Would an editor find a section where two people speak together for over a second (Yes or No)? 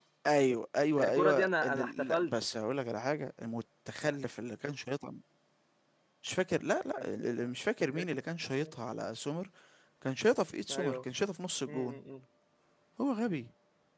Yes